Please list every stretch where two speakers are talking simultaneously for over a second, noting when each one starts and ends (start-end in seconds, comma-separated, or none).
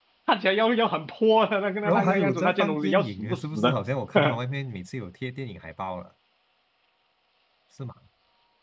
1.8-3.8